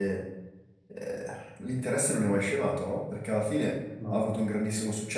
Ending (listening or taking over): listening